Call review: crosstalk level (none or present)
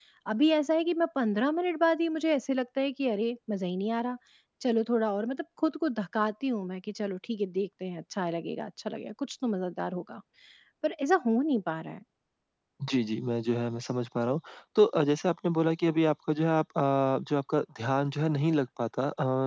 none